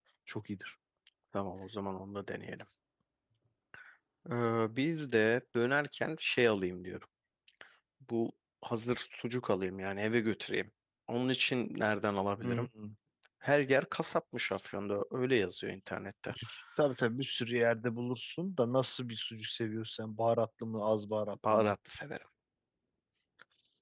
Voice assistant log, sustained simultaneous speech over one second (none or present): none